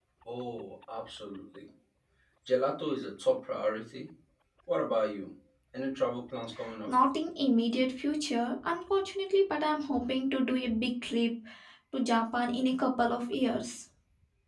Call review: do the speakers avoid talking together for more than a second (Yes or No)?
Yes